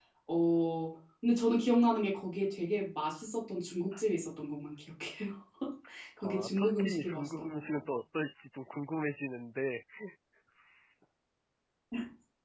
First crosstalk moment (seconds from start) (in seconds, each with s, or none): 6.2 s